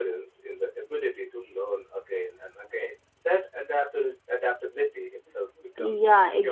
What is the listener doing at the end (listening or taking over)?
taking over